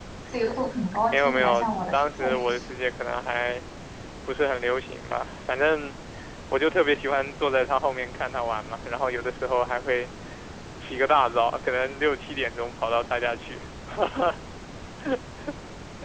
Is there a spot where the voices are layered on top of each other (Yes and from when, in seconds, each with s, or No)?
Yes, from 1.0 s